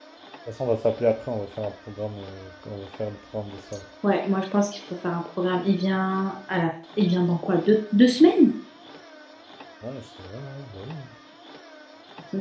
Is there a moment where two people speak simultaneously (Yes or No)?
No